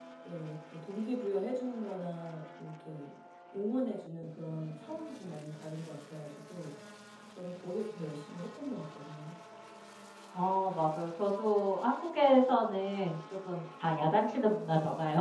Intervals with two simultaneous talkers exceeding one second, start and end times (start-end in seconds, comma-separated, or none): none